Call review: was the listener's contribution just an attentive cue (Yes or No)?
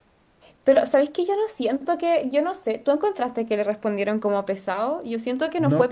No